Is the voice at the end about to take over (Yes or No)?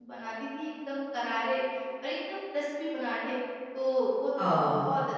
No